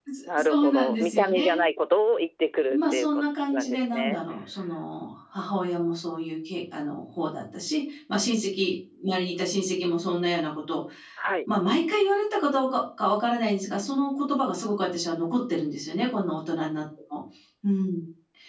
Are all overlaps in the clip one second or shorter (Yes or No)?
No